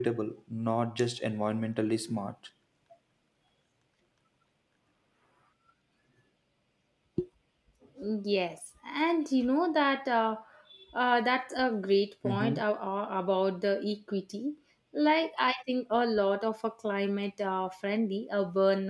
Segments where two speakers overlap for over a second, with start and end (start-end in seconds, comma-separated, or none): none